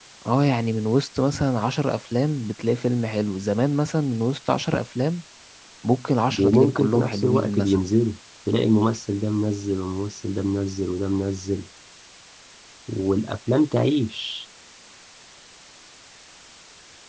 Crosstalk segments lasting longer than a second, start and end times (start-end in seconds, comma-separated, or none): 6.4-7.8